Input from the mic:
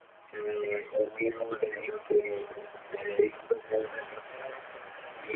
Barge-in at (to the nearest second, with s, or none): none